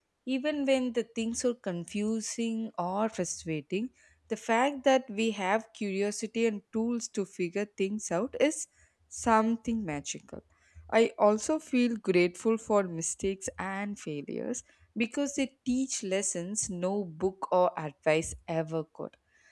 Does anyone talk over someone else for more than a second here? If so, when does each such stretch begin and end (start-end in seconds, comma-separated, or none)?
none